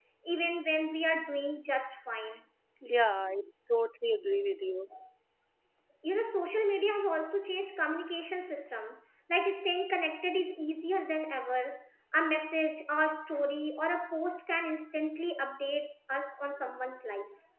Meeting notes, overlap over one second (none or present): none